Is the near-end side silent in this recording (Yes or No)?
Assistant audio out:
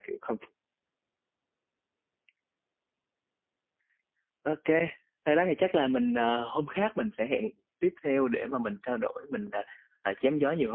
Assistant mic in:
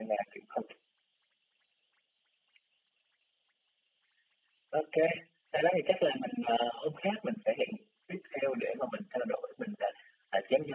Yes